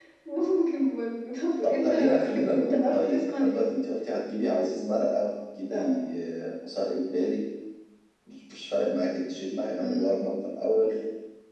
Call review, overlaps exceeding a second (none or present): present